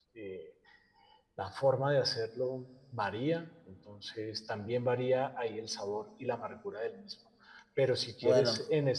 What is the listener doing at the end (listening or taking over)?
listening